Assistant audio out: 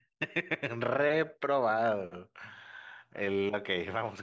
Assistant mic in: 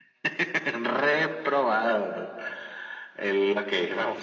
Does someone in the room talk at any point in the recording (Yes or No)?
No